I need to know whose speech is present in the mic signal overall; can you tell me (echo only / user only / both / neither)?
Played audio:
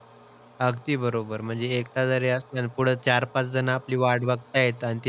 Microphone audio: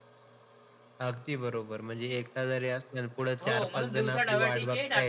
both